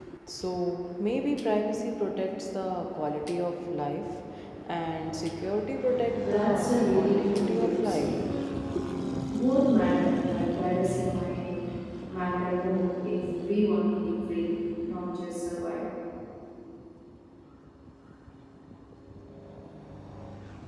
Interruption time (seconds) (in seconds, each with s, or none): 6.1 s